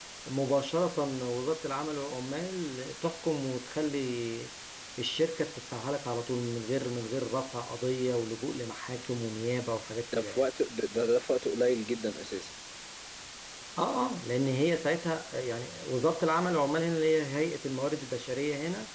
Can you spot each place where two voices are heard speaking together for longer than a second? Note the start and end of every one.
none

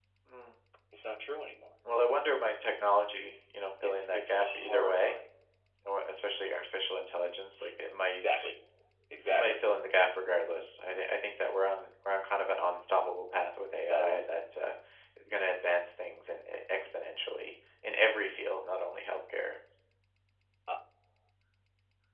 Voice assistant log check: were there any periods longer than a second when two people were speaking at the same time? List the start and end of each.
3.8-5.2

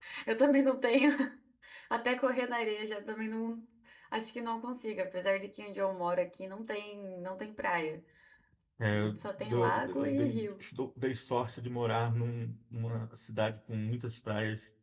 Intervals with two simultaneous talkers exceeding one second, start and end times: 8.9-10.6

